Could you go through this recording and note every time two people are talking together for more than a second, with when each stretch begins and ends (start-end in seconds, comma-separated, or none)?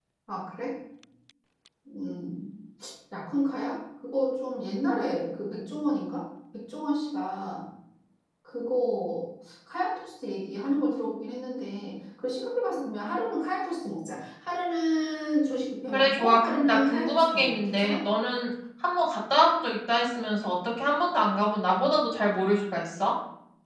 15.9-18.0